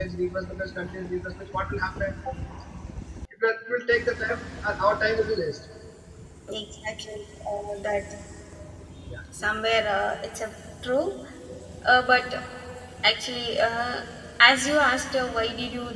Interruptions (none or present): none